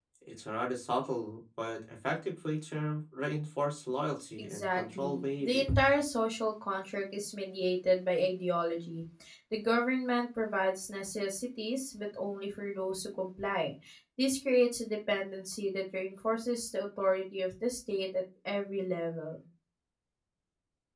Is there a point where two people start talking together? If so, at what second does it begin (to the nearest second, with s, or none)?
4 s